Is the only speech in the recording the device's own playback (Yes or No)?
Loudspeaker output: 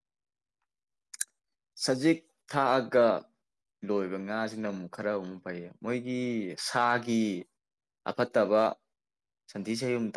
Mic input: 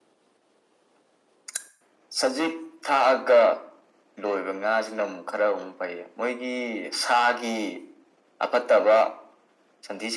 Yes